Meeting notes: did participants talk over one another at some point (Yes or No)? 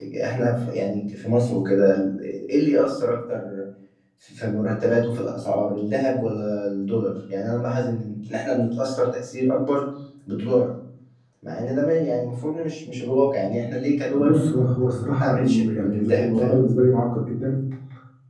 Yes